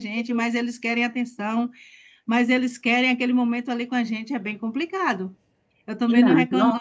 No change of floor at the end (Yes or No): Yes